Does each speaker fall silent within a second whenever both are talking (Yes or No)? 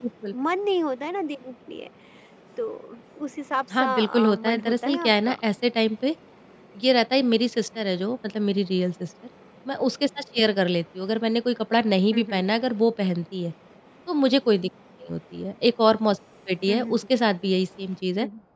No